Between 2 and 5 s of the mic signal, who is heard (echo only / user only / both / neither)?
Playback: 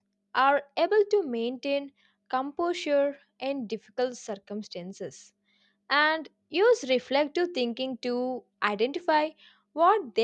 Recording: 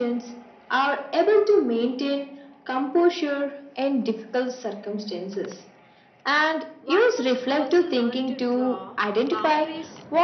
echo only